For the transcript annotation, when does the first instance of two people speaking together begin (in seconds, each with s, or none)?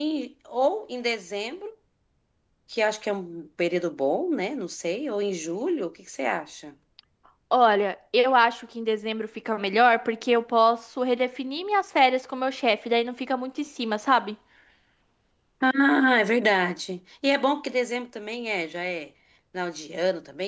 none